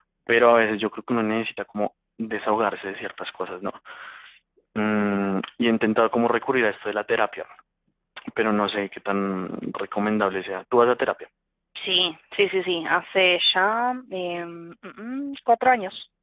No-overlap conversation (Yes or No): Yes